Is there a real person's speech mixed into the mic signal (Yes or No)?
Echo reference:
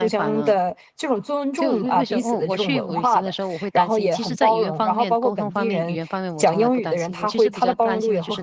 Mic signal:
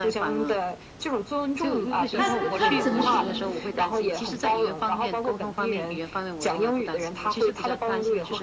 Yes